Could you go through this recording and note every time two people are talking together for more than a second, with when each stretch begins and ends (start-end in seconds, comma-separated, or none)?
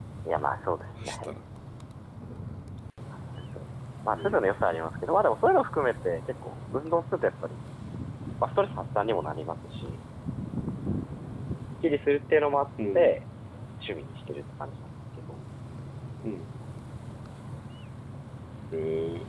none